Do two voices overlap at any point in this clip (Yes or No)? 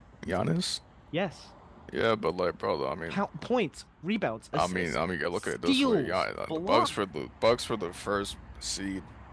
Yes